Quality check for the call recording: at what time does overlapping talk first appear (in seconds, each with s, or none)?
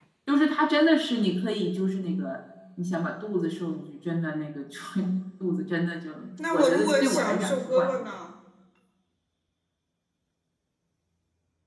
6.4 s